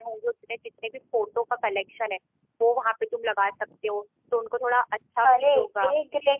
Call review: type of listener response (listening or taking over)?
taking over